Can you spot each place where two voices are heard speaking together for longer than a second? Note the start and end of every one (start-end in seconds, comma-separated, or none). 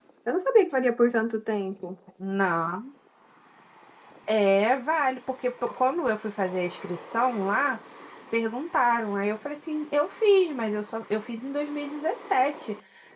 none